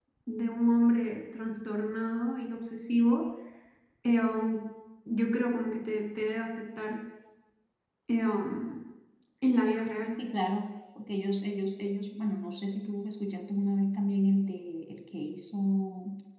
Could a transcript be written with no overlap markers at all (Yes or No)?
Yes